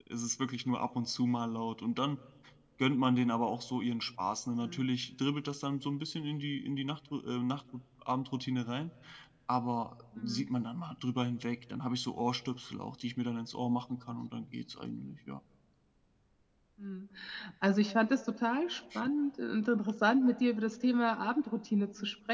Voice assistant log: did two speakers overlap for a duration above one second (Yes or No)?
No